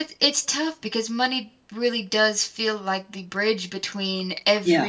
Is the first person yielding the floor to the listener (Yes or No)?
No